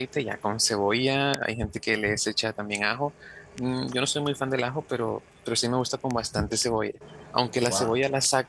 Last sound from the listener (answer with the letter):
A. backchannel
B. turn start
A